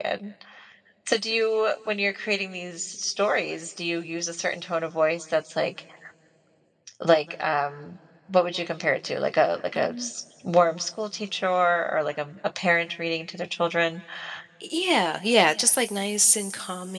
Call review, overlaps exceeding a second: none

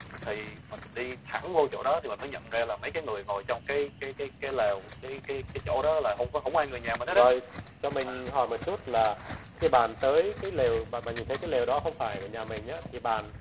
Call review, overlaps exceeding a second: none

